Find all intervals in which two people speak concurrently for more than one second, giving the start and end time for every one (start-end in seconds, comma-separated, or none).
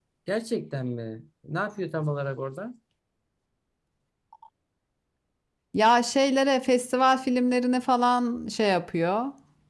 none